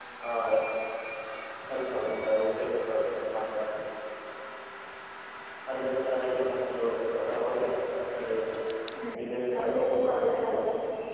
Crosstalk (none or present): present